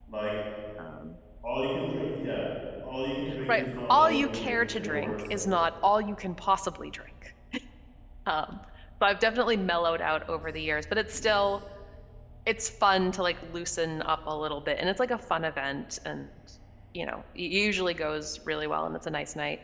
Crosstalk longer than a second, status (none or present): present